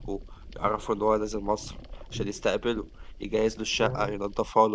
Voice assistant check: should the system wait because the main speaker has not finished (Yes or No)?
Yes